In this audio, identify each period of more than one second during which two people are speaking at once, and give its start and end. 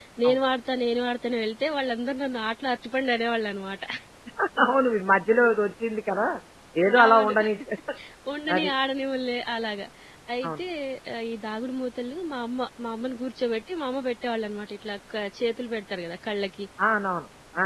none

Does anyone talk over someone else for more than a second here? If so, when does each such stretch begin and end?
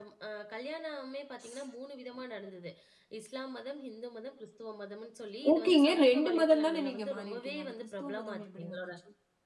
5.5-8.9

